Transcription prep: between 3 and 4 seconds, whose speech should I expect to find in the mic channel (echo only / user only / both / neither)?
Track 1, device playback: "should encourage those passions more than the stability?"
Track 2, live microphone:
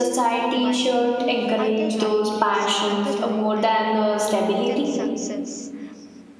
both